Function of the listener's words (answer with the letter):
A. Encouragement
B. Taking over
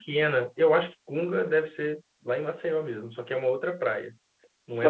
B